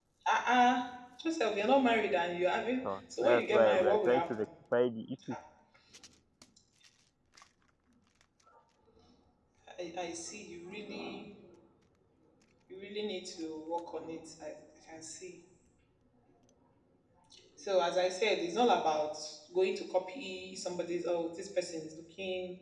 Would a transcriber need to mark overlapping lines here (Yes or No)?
Yes